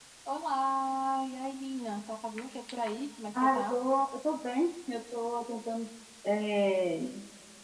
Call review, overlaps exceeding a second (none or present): none